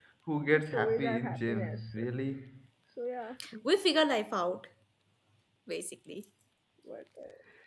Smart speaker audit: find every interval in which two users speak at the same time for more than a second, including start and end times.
0.6-2.0

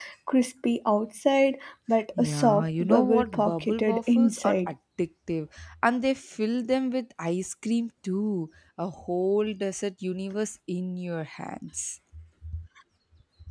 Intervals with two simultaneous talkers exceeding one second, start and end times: 2.2-4.7

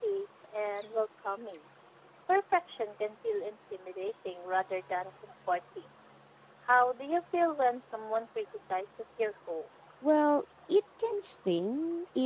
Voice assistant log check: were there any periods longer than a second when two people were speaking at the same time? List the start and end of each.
none

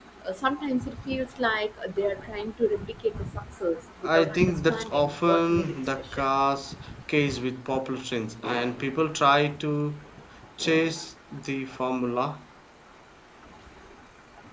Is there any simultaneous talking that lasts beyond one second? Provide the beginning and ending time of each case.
4.1-6.2

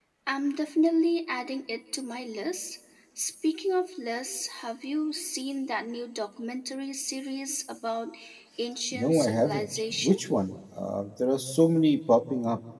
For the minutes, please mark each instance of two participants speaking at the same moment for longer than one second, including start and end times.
8.9-10.2

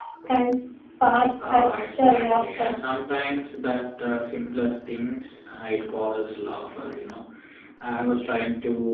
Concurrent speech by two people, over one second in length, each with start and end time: 1.4-2.8

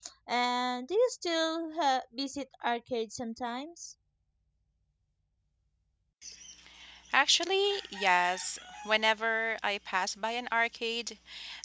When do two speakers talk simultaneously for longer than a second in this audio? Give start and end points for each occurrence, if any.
none

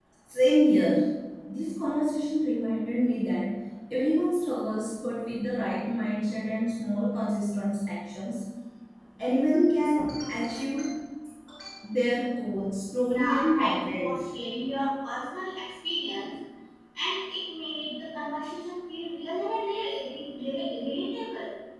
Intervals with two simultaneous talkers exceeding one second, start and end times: 13.1-14.3

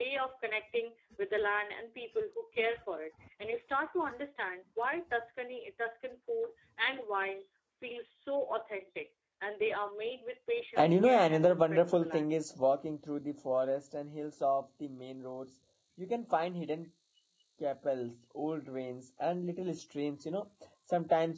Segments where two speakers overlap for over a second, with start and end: 10.8-12.3

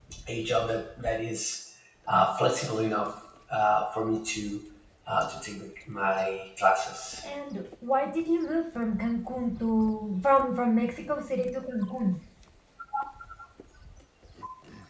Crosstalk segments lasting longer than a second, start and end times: none

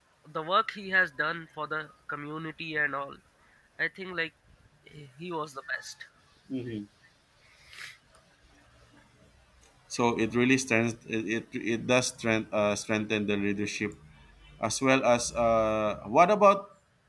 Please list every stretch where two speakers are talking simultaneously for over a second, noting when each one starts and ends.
none

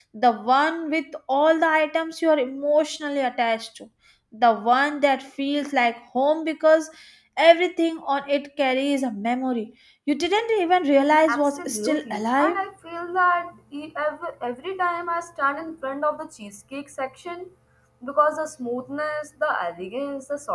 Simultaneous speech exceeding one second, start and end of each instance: 11.3-12.6

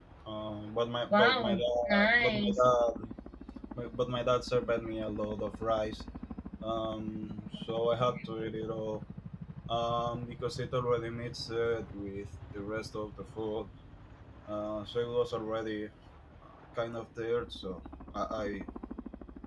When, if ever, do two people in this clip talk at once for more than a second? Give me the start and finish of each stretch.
1.1-2.6

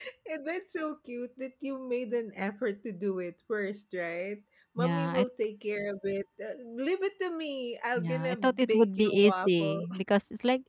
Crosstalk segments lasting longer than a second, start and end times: 8.0-9.8

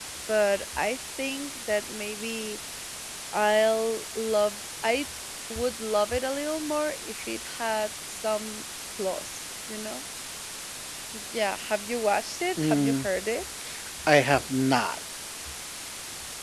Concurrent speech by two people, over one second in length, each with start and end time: none

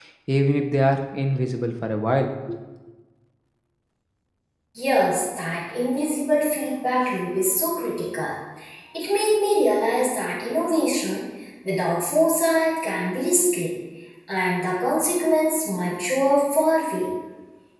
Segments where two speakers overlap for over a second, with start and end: none

